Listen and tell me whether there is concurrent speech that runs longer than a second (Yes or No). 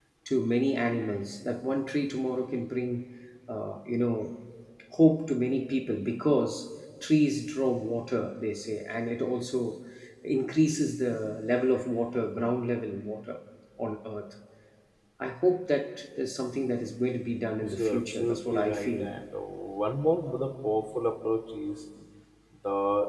Yes